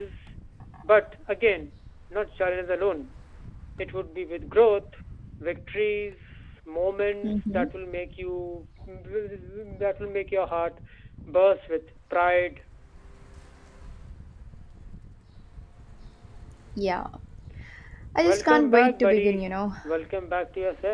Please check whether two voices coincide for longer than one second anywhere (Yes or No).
Yes